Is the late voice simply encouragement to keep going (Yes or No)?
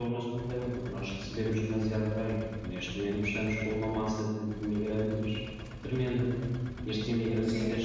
No